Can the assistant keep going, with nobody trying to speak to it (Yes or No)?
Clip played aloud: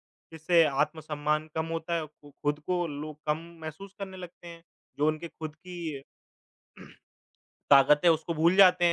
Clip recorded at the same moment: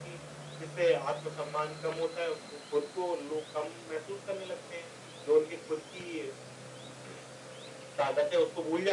Yes